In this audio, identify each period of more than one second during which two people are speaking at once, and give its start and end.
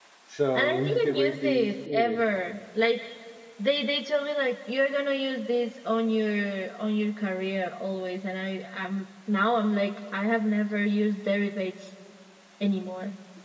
0.6-2.2

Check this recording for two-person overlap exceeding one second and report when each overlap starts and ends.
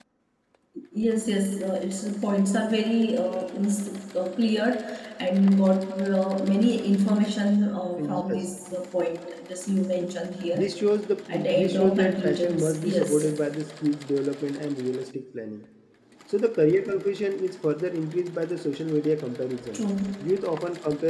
11.5-13.2

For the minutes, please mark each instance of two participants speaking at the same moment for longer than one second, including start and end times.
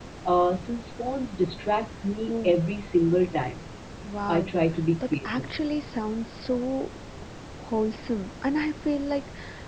none

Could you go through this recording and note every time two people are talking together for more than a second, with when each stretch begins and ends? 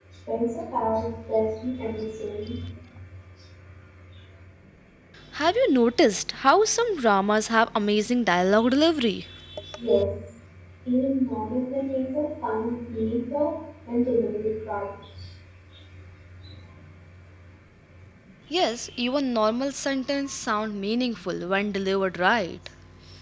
none

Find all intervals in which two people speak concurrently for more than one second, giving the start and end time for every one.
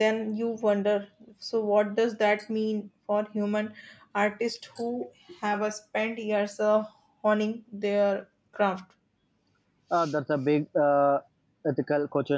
none

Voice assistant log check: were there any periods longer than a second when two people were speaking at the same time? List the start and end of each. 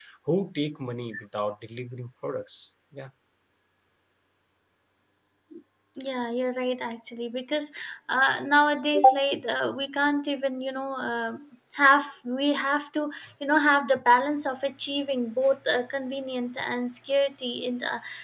none

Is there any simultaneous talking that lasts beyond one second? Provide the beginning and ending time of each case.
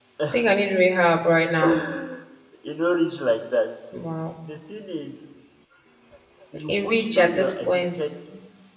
6.7-8.1

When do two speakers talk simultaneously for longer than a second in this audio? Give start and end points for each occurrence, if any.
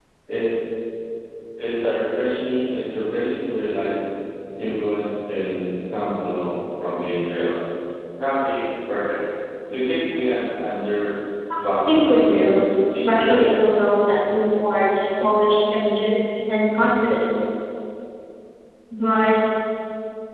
11.6-13.5

